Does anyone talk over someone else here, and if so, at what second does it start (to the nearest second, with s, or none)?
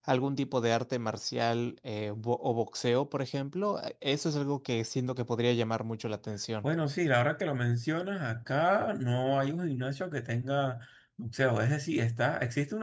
none